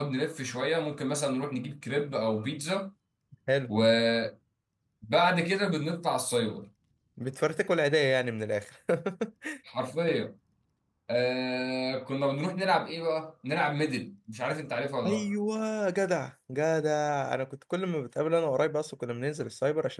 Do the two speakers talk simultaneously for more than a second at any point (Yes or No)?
No